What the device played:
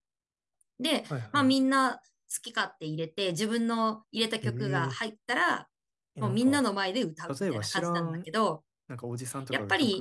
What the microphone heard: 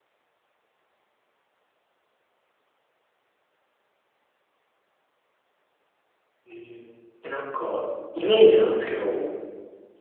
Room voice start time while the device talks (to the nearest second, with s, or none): 6 s